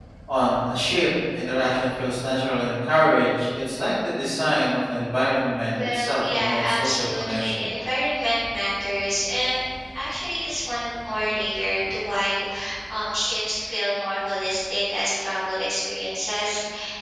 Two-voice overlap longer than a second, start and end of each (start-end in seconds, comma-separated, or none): 5.7-7.6